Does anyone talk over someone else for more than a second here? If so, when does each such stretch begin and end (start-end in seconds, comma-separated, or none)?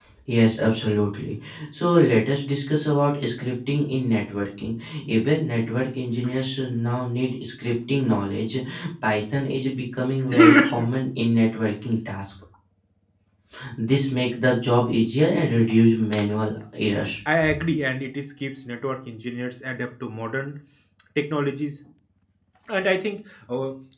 none